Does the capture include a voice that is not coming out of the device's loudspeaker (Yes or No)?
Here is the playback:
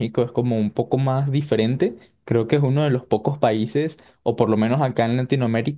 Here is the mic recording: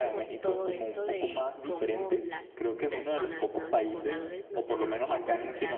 Yes